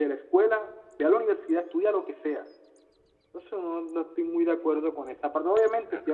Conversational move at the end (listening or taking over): listening